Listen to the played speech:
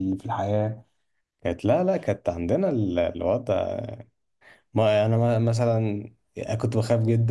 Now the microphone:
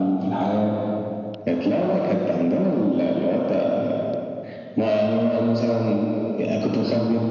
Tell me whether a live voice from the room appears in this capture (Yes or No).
No